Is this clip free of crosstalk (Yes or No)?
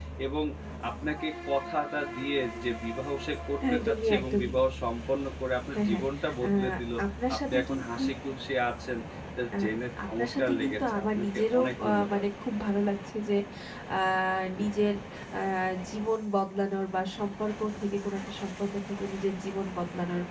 No